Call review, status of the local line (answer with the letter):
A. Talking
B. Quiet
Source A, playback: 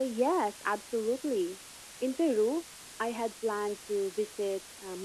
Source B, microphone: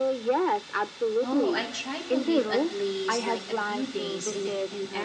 A